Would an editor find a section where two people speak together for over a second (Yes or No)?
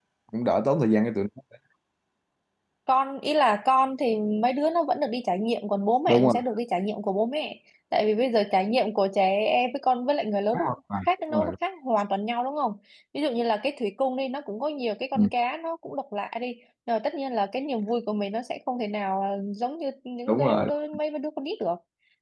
No